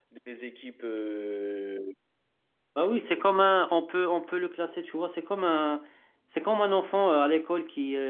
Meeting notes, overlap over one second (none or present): none